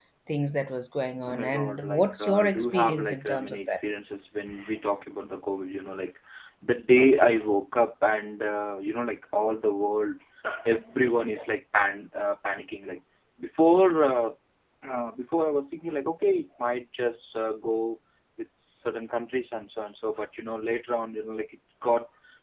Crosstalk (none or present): present